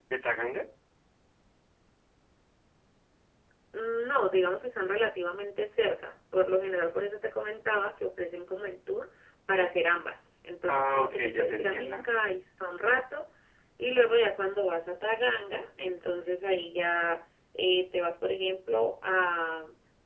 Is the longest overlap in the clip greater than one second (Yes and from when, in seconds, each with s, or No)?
Yes, from 10.7 s